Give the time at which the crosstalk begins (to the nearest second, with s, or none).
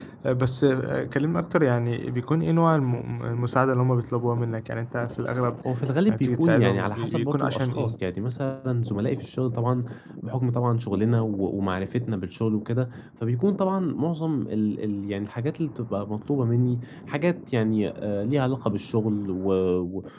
6 s